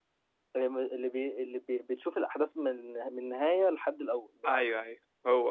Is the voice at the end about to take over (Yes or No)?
Yes